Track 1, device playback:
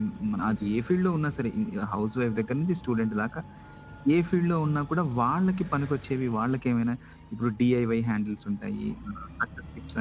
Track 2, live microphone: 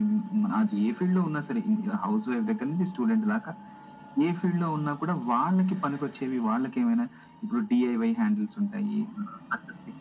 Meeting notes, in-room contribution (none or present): none